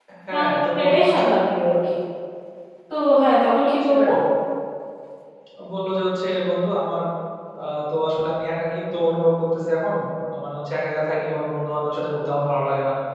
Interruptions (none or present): present